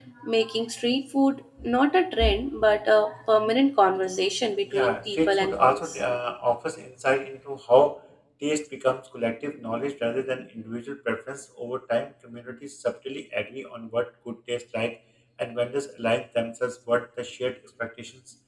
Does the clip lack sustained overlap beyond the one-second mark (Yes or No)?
No